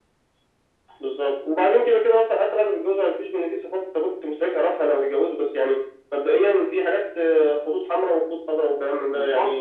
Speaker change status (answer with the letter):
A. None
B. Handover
B